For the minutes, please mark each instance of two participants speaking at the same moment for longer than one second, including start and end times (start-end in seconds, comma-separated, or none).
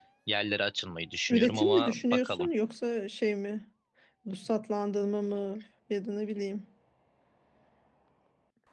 1.3-2.5